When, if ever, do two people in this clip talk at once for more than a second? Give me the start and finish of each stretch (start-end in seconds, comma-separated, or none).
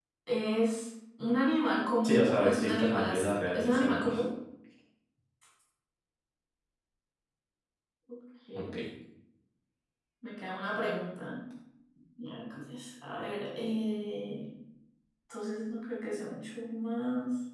2.0-4.1